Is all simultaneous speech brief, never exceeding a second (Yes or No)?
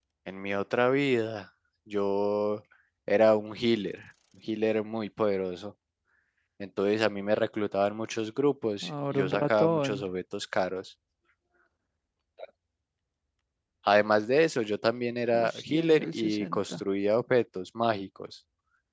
No